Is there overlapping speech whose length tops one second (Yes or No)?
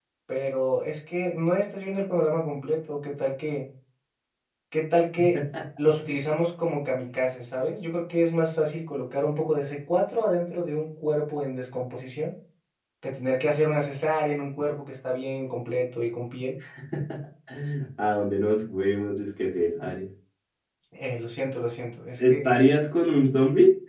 No